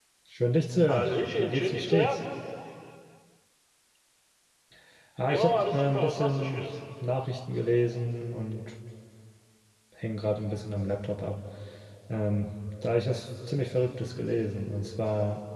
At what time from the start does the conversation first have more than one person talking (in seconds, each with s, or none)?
0.9 s